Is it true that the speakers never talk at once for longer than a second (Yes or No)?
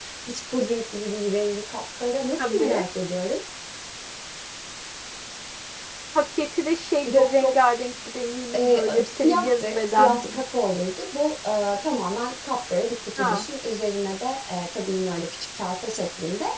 No